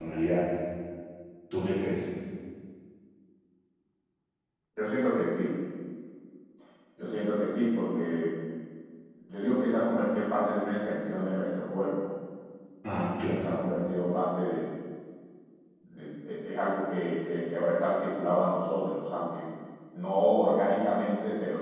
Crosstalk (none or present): none